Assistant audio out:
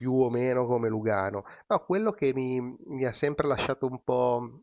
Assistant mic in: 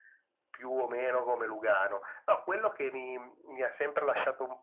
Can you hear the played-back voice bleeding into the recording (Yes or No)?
Yes